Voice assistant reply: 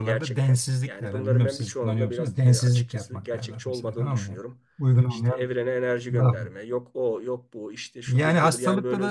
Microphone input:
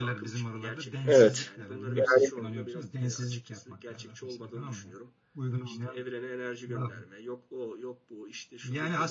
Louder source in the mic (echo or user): user